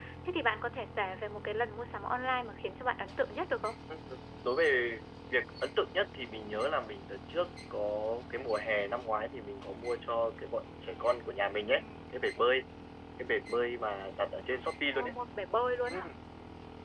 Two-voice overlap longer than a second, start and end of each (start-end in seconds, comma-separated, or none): none